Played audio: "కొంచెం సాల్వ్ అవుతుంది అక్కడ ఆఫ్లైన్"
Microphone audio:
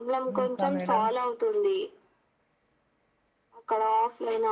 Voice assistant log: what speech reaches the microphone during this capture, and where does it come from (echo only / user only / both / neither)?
both